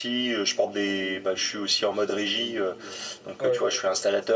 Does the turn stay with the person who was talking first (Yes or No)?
Yes